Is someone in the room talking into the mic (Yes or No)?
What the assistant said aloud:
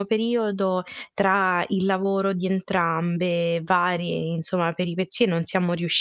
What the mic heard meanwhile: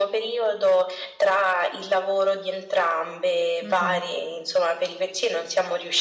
Yes